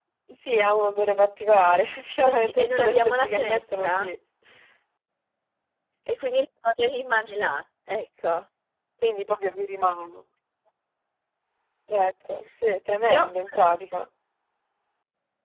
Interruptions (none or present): present